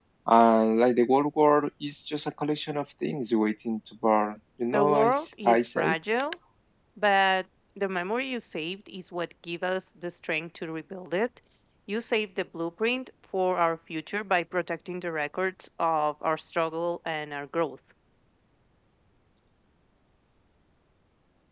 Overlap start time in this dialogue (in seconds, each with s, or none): 4.7 s